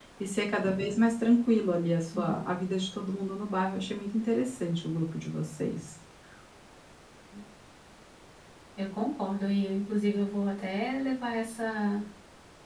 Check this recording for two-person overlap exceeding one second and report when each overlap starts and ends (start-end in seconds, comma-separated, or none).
none